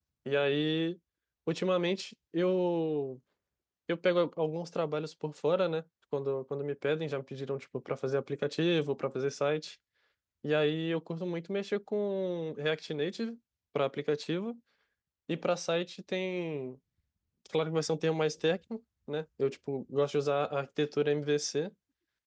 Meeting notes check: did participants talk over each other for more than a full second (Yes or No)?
No